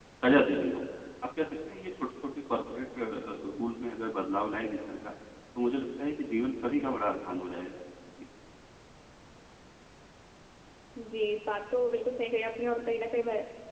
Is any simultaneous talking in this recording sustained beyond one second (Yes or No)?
No